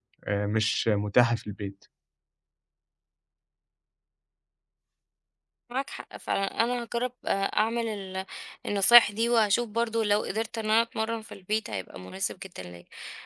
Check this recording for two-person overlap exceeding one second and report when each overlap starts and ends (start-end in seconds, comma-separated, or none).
none